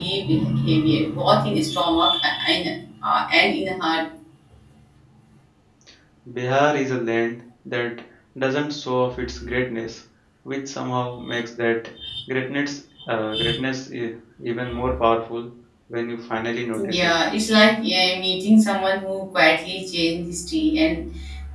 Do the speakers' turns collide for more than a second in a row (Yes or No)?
No